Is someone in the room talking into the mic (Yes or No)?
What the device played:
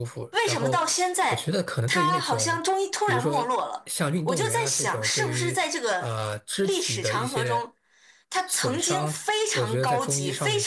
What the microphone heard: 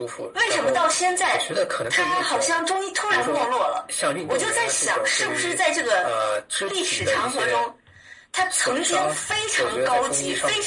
No